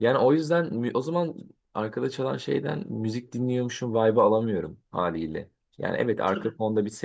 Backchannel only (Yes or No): Yes